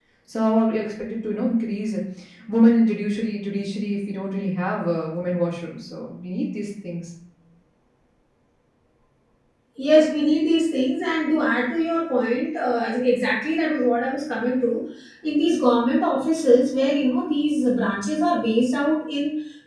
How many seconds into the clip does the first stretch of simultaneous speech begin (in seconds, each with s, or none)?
none